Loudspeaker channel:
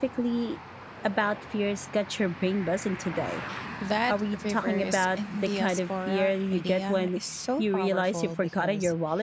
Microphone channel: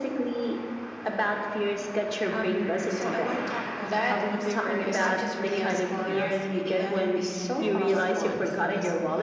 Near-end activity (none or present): present